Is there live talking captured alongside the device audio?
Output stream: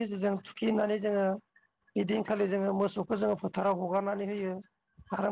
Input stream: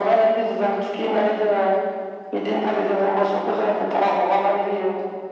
No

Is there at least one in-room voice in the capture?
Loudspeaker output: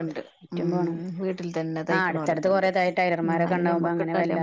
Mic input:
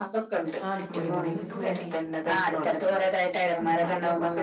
Yes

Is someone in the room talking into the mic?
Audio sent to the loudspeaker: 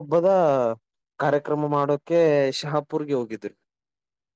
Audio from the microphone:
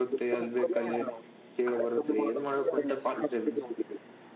Yes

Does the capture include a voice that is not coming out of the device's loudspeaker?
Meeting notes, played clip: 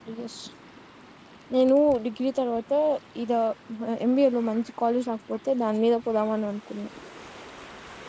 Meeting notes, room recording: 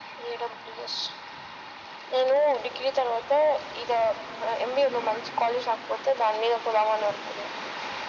No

